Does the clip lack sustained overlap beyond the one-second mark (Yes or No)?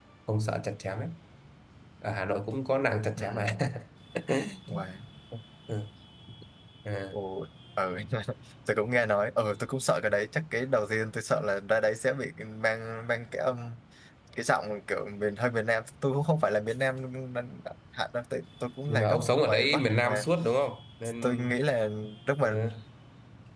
No